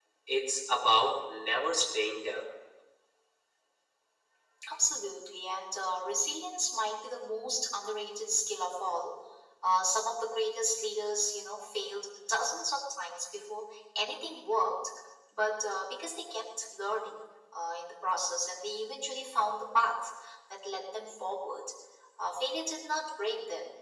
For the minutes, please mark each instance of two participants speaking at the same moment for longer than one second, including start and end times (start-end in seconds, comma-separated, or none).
none